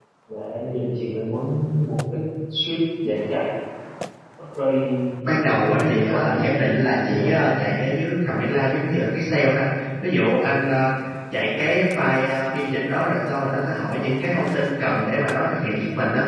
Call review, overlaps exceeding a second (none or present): present